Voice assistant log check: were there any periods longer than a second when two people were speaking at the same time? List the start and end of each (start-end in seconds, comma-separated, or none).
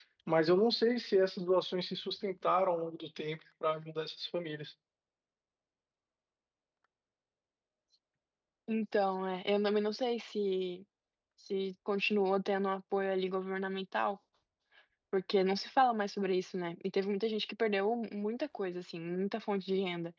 none